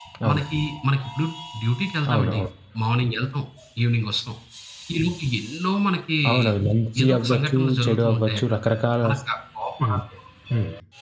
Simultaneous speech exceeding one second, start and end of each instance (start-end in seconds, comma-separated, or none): 7.0-8.6